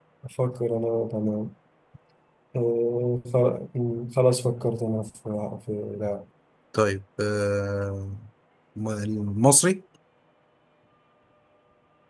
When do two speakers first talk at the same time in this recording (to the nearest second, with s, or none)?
none